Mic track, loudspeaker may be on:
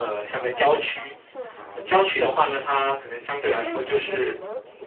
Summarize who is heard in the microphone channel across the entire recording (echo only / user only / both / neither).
both